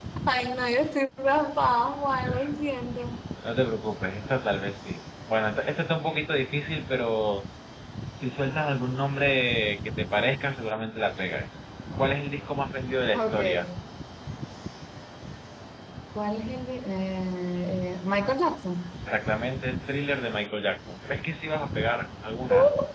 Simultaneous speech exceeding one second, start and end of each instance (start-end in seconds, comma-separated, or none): none